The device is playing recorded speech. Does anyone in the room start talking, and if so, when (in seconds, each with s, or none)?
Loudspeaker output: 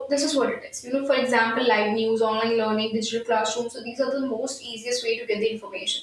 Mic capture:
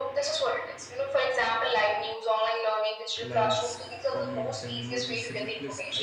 3.2 s